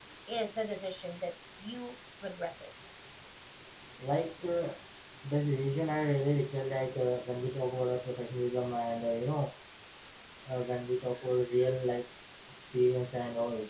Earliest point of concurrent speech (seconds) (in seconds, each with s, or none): none